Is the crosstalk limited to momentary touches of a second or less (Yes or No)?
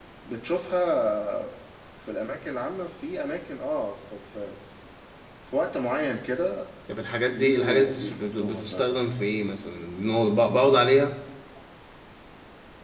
No